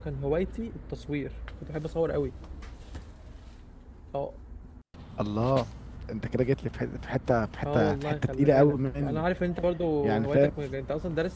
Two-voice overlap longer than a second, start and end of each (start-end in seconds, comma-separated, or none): 7.7-9.2